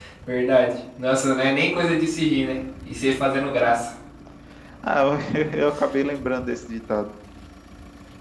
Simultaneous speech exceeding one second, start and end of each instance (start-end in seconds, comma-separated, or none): none